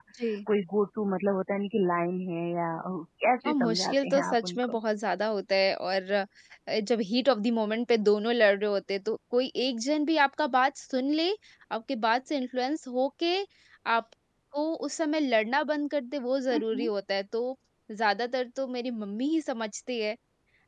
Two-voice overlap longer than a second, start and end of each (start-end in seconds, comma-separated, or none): 3.5-4.8